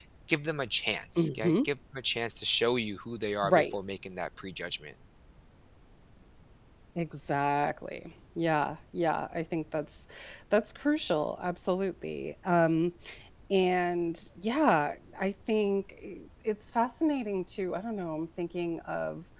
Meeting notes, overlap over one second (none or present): none